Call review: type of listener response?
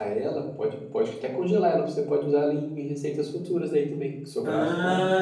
taking over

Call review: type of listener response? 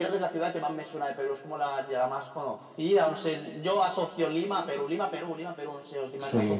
taking over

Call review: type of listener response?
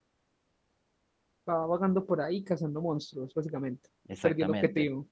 taking over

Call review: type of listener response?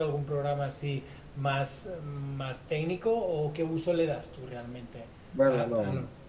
taking over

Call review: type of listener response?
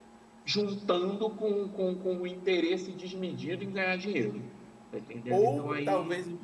taking over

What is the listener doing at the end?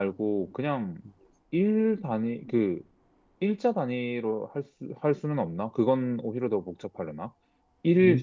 listening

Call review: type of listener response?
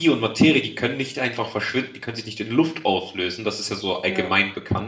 listening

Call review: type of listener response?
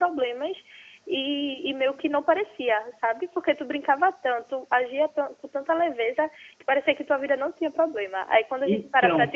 listening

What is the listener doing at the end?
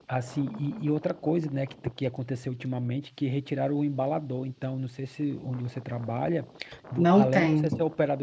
listening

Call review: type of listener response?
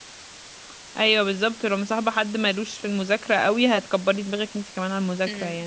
taking over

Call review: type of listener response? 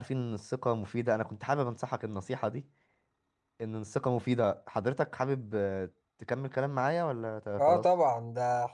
taking over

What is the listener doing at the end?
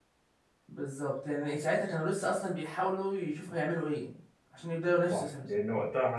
taking over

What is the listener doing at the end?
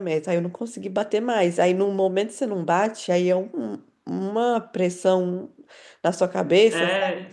taking over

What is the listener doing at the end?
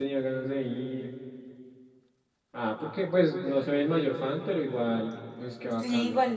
taking over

